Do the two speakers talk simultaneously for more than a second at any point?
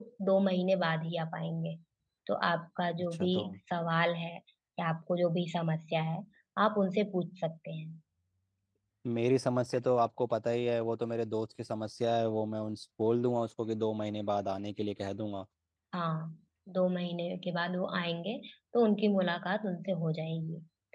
No

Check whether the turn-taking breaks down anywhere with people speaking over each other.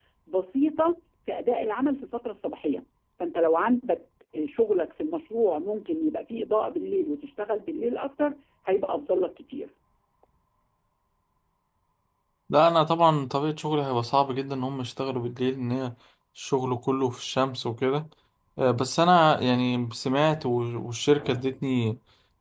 No

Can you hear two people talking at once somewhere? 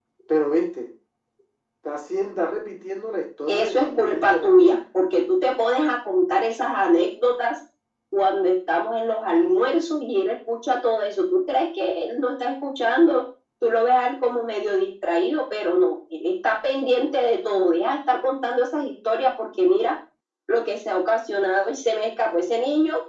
Yes, from 3.5 s

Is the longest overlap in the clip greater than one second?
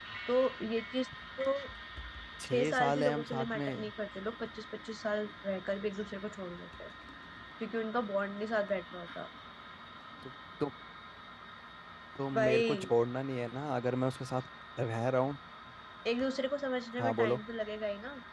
Yes, from 2.5 s

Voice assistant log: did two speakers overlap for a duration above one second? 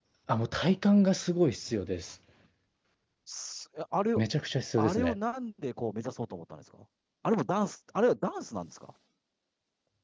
No

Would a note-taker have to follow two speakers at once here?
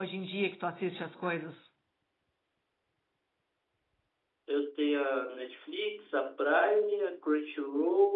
No

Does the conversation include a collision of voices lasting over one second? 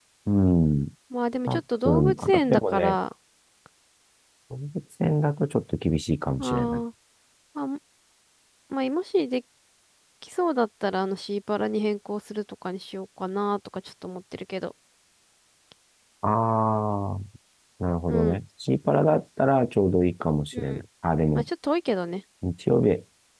Yes, from 1.5 s

